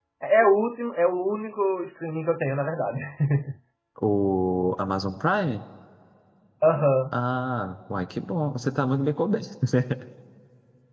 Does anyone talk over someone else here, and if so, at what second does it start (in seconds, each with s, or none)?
none